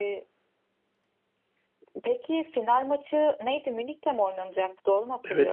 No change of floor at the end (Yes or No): No